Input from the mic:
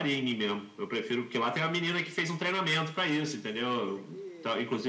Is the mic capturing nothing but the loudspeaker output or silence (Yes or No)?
No